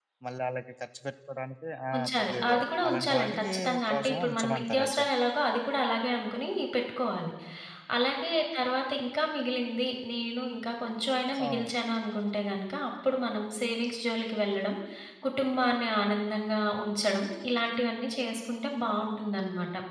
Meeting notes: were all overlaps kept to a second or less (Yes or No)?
No